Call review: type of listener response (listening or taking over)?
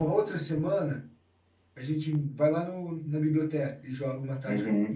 taking over